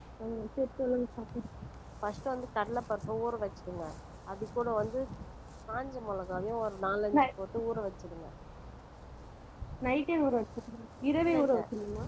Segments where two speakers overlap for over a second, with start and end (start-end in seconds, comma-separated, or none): none